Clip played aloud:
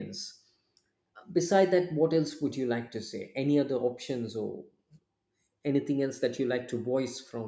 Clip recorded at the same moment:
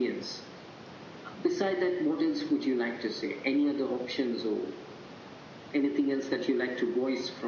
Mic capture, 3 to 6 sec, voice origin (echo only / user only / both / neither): echo only